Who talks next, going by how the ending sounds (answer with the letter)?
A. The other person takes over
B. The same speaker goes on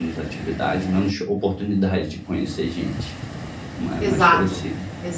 A